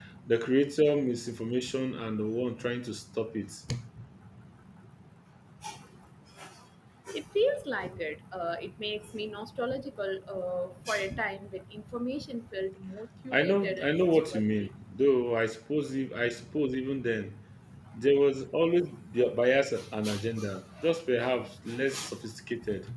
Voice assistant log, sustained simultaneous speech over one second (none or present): present